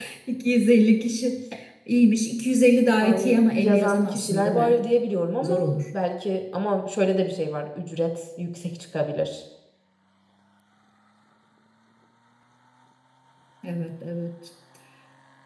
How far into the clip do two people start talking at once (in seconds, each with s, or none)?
3.0 s